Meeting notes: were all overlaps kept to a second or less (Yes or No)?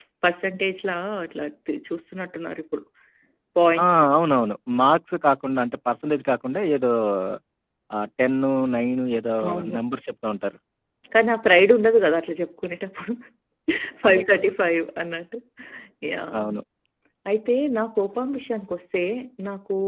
Yes